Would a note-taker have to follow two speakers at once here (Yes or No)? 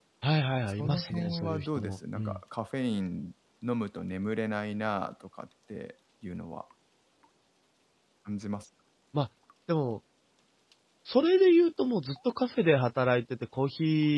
Yes